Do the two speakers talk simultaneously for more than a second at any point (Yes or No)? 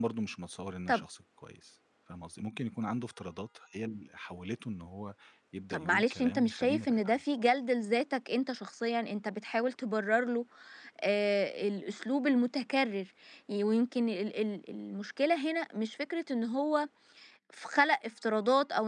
Yes